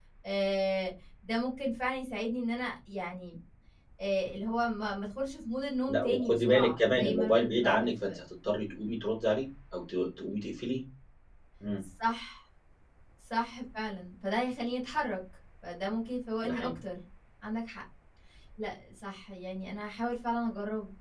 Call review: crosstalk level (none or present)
present